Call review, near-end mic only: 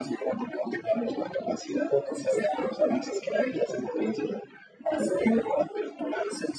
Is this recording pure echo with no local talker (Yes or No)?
Yes